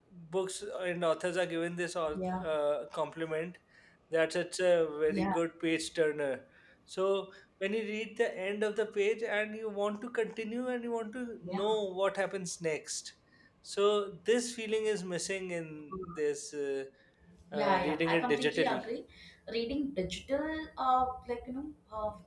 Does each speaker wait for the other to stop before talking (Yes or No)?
No